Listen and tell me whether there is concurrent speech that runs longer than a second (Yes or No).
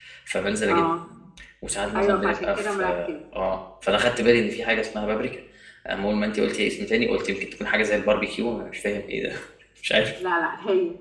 Yes